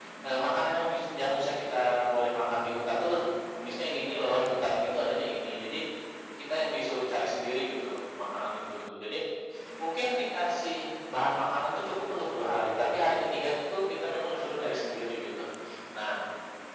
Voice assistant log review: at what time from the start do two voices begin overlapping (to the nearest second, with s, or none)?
none